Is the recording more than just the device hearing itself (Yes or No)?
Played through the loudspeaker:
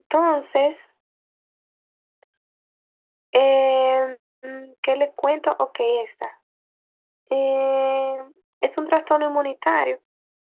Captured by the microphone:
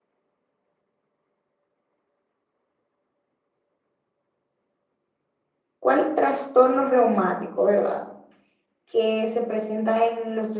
Yes